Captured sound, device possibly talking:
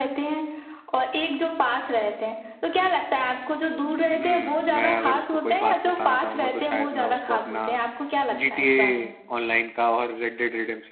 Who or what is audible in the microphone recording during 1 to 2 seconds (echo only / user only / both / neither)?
echo only